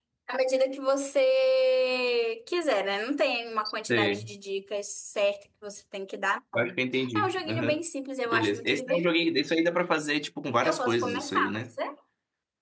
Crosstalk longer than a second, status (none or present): present